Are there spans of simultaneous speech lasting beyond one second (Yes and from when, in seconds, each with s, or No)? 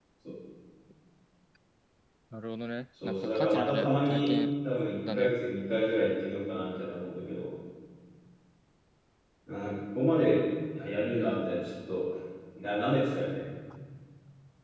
Yes, from 3.0 s